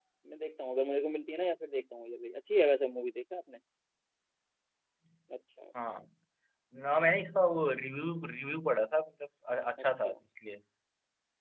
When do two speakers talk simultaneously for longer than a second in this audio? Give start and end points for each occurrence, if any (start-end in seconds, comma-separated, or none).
none